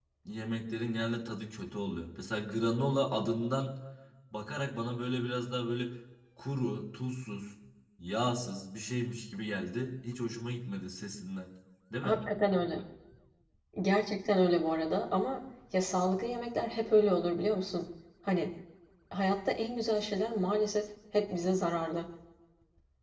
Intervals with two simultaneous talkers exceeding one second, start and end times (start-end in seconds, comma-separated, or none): none